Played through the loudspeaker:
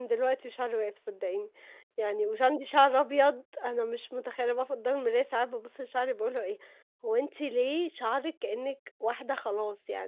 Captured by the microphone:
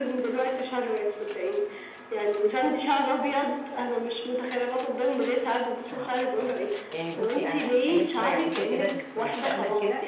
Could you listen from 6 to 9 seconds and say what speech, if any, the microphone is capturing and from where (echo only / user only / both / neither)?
both